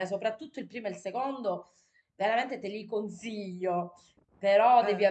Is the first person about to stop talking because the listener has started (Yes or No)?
No